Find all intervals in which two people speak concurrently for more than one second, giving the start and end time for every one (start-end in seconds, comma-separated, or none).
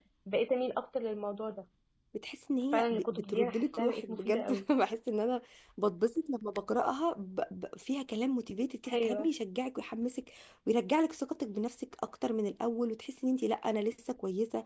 2.7-4.6